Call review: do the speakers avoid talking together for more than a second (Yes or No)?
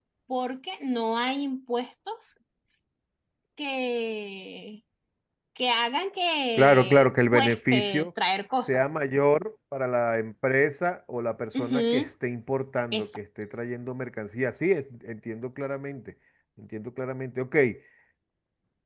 No